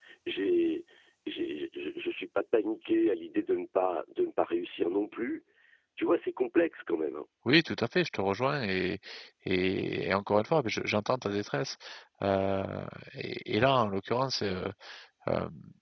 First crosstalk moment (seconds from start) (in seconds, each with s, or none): none